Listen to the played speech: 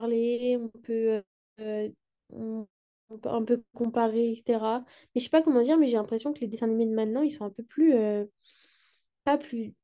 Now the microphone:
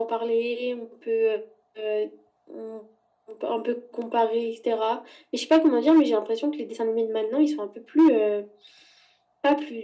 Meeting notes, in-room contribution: none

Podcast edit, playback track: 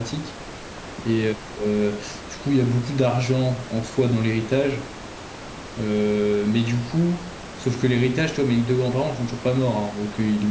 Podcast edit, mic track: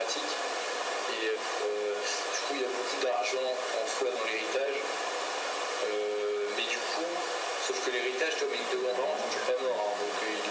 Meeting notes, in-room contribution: present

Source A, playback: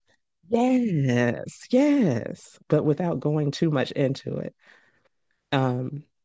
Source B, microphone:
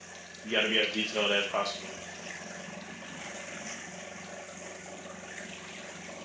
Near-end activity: present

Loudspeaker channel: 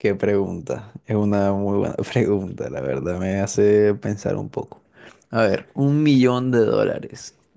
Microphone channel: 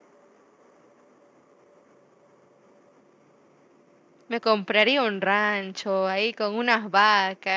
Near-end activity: present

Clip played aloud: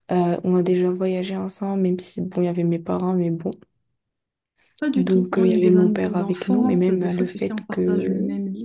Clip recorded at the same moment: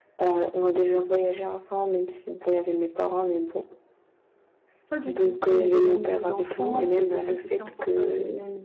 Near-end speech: none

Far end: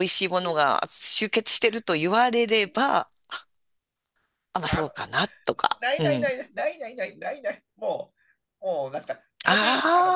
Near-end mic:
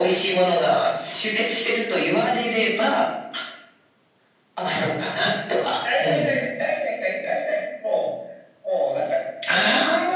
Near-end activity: none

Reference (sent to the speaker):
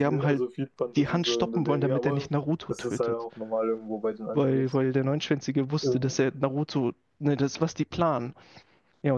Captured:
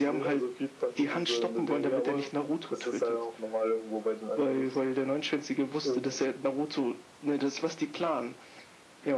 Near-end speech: none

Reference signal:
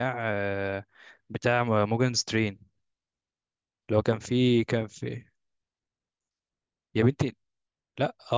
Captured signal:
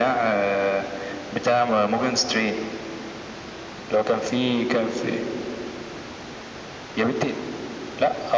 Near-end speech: none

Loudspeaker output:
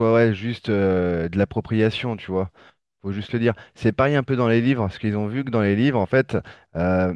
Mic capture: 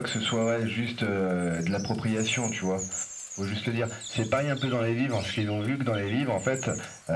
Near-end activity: none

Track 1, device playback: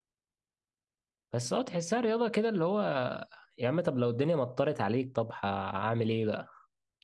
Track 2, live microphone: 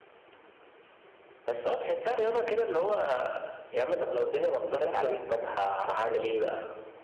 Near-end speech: present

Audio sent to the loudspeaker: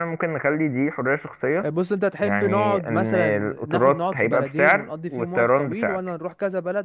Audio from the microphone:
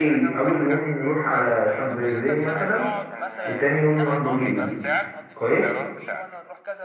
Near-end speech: present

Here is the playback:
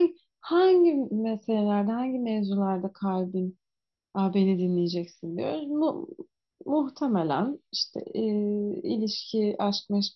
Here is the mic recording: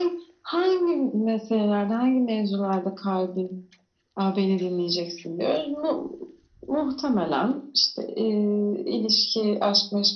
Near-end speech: none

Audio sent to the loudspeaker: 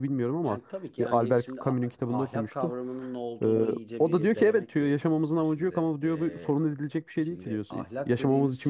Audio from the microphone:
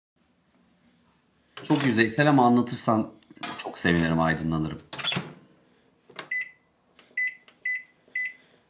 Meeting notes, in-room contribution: present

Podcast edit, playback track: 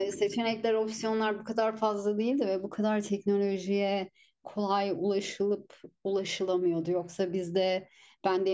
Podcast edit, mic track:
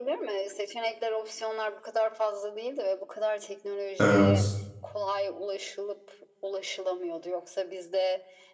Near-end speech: present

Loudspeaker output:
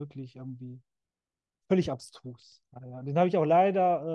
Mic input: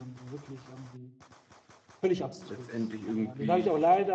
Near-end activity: present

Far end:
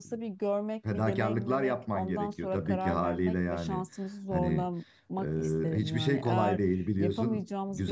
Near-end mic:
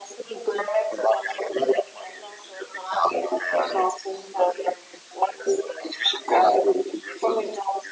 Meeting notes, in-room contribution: none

